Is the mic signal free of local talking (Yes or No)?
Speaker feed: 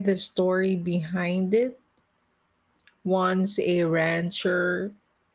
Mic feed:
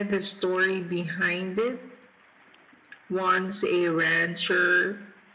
Yes